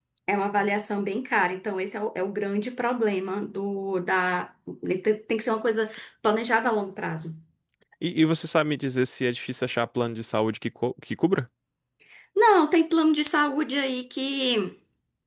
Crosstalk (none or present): none